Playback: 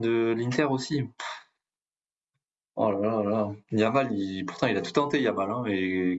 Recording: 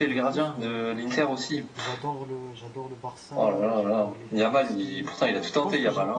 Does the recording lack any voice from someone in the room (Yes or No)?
No